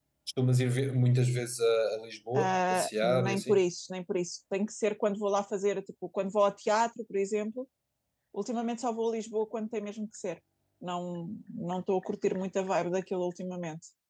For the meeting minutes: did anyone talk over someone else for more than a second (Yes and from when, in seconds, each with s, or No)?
Yes, from 2.4 s